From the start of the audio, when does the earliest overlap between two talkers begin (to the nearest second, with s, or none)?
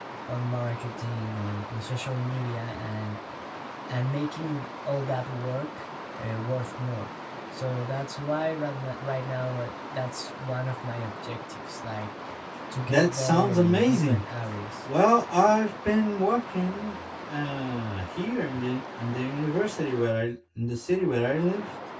13 s